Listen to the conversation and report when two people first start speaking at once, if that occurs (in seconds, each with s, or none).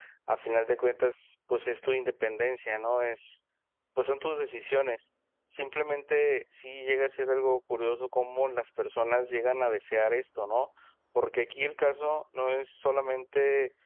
none